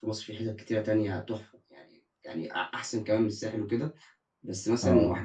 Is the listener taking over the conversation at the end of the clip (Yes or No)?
No